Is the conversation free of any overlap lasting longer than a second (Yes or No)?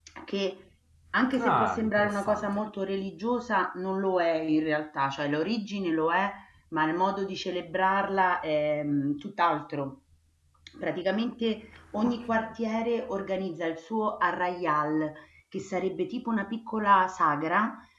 No